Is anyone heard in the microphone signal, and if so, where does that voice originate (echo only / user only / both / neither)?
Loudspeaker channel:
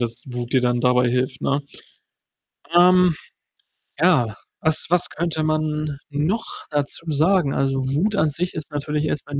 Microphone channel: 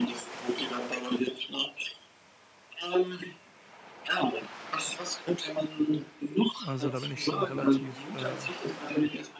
both